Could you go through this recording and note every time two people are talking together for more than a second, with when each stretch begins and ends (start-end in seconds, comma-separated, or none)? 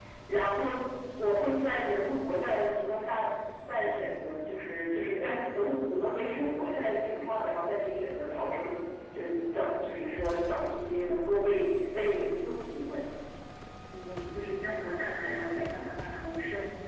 none